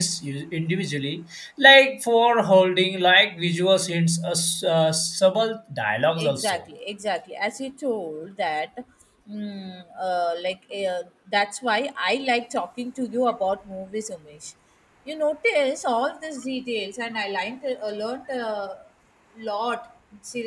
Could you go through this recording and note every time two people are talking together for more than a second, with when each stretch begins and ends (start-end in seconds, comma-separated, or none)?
none